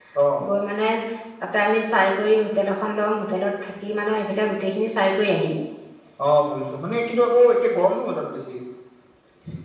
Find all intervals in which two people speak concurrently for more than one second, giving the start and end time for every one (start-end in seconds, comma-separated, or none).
none